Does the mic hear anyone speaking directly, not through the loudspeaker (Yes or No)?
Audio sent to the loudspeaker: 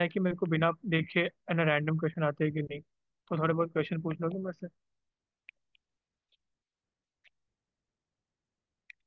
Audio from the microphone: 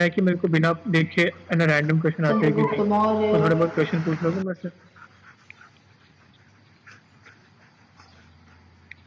Yes